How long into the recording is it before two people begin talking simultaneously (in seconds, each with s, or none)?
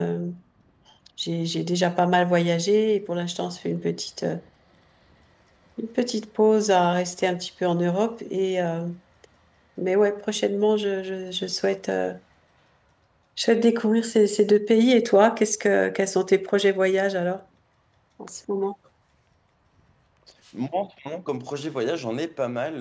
none